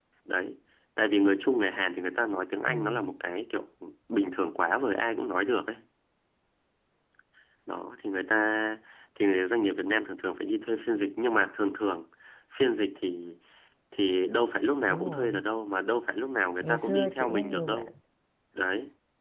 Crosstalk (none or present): present